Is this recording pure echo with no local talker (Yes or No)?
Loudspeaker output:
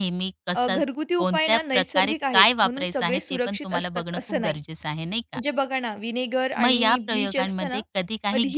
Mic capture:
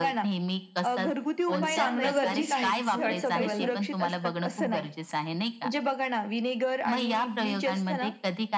No